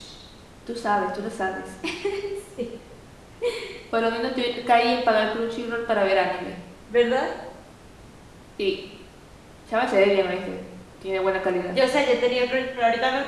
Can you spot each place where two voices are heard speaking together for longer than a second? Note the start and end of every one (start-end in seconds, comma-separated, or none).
none